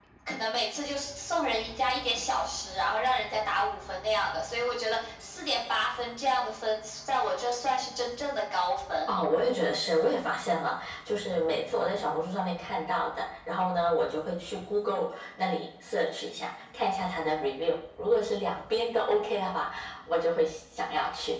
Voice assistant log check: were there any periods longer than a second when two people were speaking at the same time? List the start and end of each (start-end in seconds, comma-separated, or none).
none